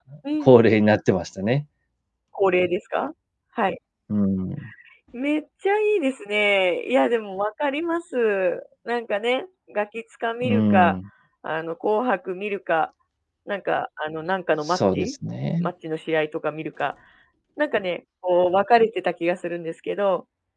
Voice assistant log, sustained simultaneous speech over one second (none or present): none